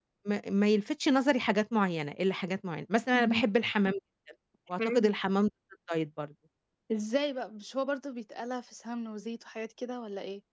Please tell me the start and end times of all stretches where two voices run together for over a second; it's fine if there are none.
none

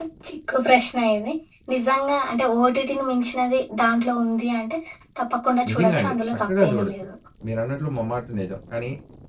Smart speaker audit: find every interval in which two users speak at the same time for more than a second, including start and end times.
5.7-6.9

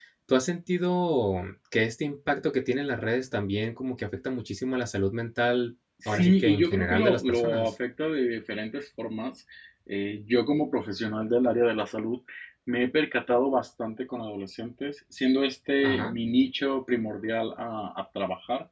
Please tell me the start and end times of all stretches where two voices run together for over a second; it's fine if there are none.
6.0-7.7

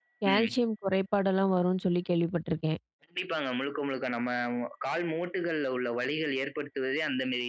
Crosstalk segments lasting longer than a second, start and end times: none

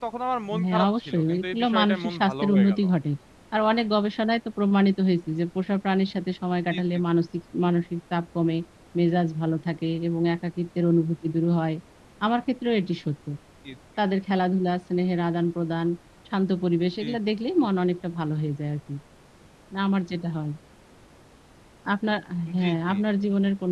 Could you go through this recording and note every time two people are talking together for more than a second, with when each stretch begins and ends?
0.6-2.8

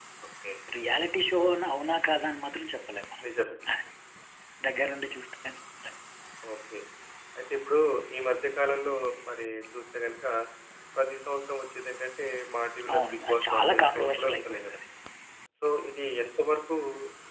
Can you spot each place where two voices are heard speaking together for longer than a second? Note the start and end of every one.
12.9-14.8

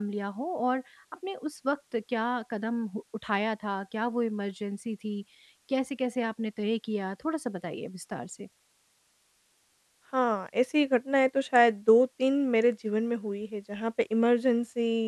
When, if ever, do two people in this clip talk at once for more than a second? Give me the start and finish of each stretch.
none

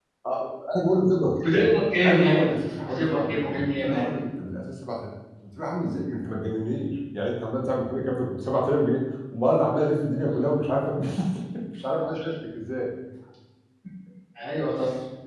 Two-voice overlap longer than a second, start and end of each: 2.0-4.2

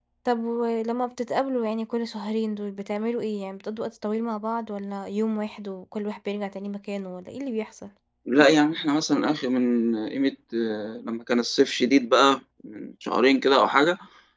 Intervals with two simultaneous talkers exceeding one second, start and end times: none

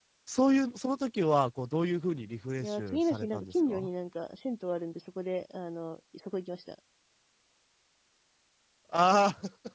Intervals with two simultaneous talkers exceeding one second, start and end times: 2.6-3.9

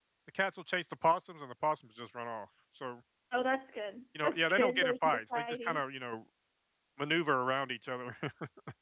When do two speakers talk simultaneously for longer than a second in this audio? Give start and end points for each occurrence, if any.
4.2-5.8

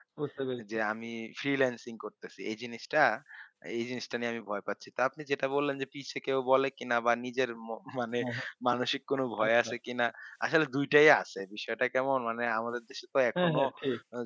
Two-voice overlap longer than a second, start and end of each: none

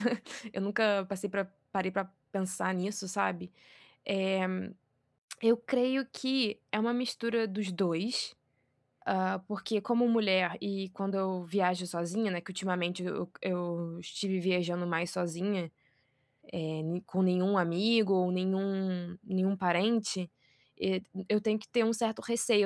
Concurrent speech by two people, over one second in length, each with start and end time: none

